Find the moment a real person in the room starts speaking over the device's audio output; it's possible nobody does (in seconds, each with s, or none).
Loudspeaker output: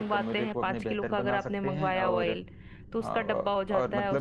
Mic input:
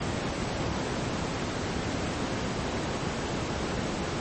none